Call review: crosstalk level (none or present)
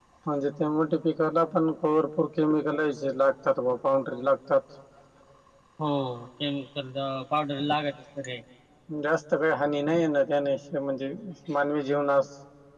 none